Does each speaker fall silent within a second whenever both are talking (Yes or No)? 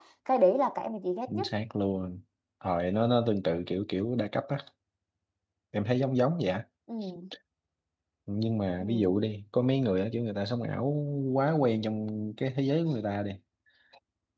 Yes